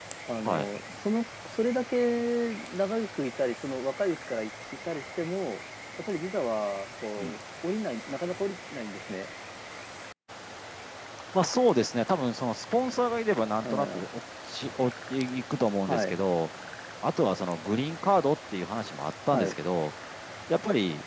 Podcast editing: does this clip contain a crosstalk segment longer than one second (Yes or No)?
No